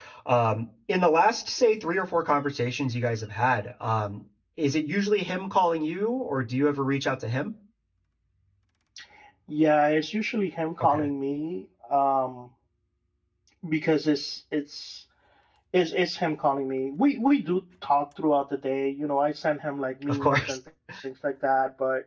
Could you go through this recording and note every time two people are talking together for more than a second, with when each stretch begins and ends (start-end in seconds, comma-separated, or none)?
none